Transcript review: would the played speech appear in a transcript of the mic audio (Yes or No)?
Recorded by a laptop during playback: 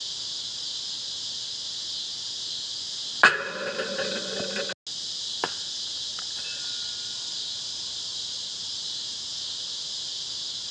No